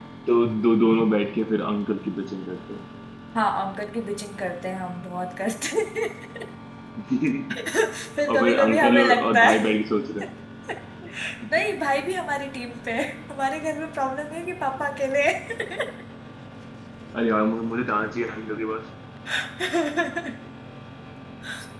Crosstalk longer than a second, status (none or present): present